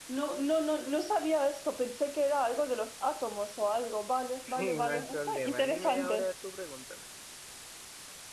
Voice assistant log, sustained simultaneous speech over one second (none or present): present